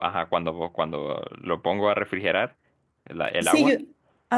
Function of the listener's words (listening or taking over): taking over